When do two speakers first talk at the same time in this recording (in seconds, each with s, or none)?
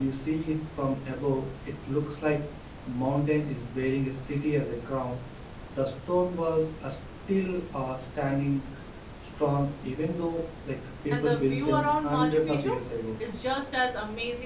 11.1 s